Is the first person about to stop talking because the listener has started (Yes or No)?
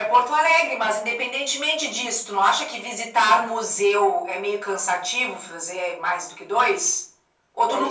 Yes